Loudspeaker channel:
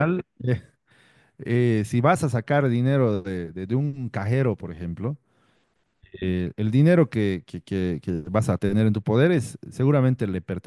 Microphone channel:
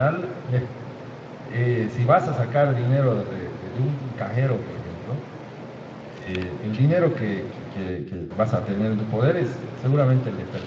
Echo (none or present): present